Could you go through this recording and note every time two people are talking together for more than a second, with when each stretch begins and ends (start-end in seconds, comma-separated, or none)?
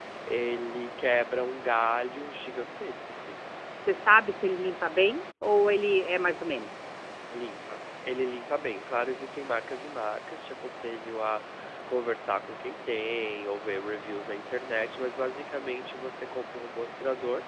none